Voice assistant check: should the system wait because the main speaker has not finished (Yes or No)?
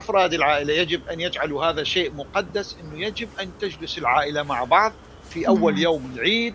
Yes